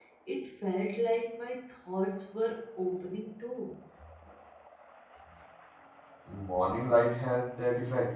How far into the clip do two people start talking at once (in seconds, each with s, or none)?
none